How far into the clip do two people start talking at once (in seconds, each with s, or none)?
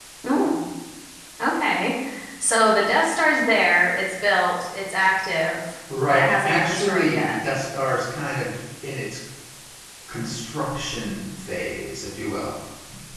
5.9 s